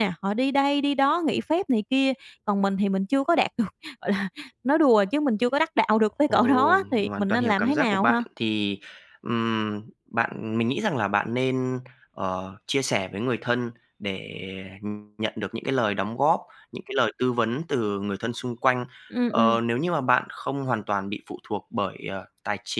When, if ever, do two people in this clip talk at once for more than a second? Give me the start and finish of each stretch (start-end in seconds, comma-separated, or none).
6.3-8.2